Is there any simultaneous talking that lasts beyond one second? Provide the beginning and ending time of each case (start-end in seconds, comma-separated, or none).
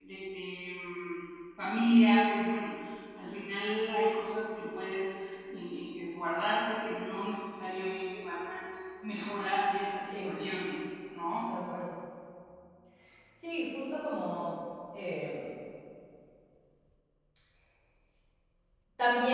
none